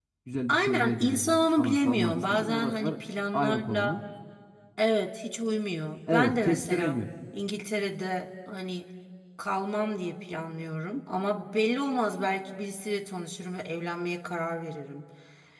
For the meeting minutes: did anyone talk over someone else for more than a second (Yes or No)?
Yes